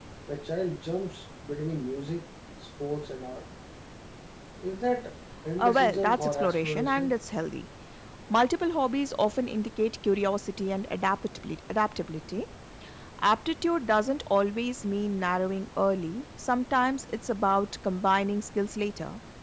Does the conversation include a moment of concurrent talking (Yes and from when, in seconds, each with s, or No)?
Yes, from 5.6 s